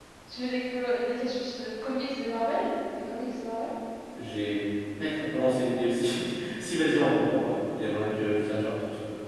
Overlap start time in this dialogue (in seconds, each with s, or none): none